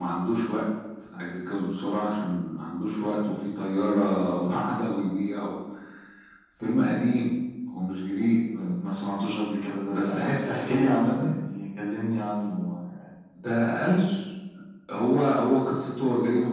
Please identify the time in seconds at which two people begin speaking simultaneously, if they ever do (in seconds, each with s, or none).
9.9 s